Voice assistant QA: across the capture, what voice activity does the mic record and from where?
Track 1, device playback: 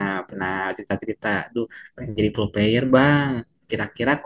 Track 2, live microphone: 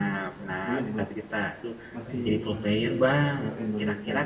both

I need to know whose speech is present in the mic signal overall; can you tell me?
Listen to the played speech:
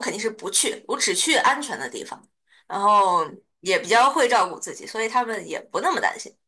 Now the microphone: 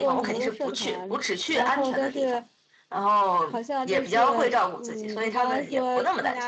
both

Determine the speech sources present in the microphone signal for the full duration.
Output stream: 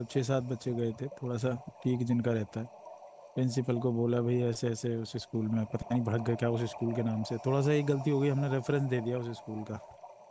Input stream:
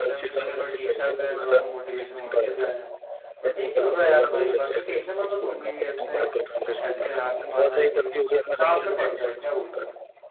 both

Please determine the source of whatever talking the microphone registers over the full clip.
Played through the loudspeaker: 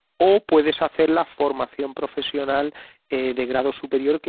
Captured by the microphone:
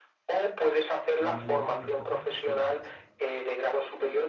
both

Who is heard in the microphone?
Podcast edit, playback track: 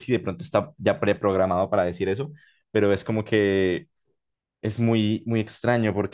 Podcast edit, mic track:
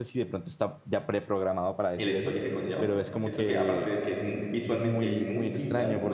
both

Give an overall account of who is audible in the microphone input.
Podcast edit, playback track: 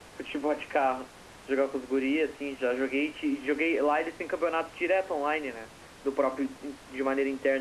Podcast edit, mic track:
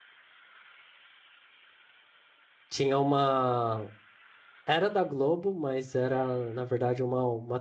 user only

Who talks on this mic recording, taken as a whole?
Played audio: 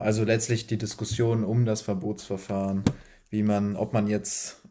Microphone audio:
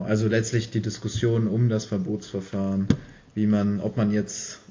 echo only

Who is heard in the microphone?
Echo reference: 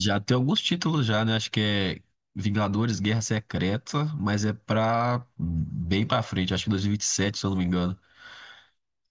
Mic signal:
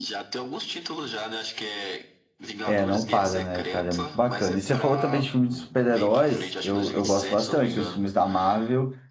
both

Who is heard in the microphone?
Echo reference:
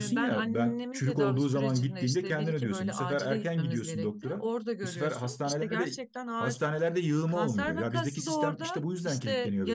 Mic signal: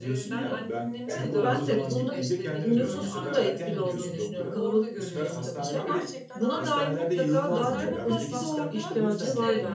both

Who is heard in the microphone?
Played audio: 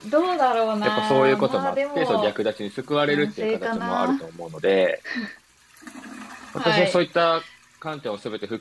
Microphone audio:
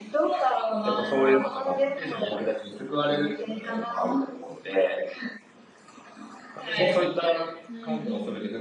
both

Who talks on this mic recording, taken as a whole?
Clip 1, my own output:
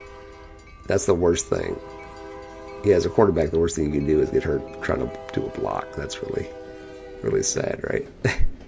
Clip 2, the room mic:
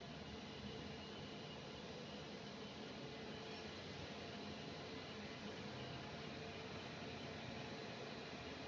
neither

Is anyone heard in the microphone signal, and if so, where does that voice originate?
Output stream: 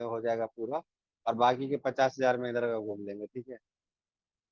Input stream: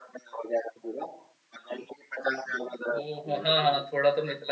both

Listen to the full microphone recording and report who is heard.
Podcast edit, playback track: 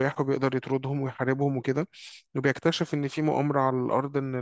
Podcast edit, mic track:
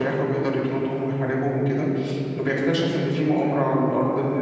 echo only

